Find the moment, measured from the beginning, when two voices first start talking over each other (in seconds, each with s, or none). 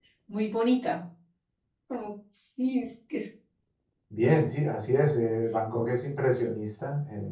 none